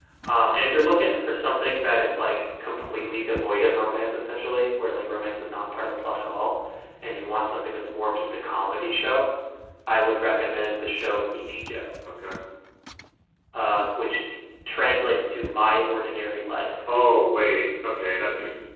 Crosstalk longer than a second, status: none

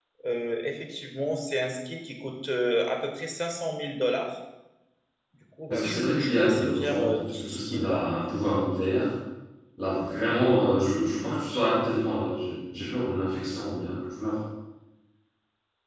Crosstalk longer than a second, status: present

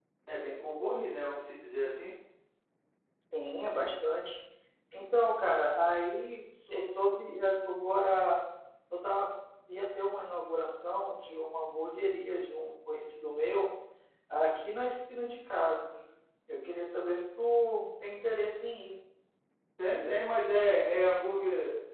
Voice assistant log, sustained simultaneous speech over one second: none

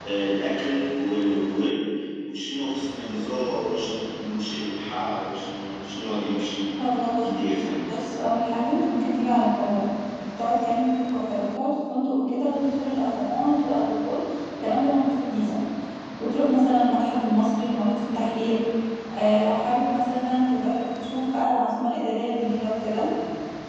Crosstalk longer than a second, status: none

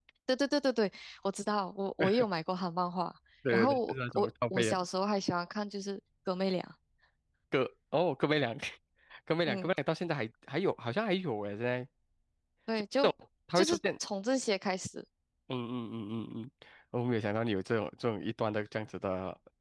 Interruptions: present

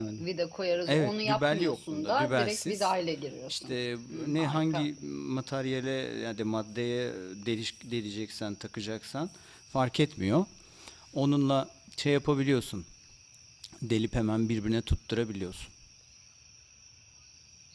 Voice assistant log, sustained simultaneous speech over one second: present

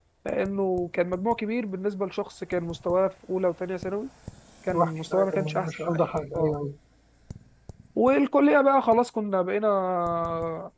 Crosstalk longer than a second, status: present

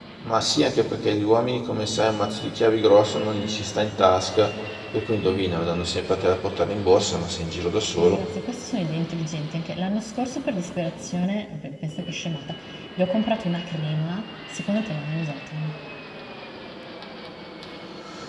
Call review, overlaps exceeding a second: none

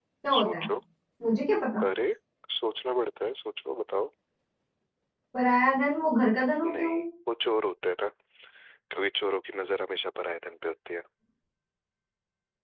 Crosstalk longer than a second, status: none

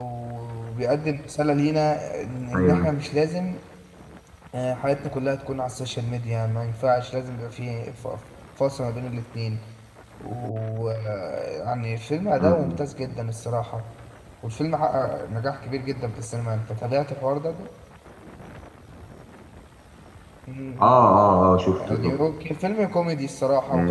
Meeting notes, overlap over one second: none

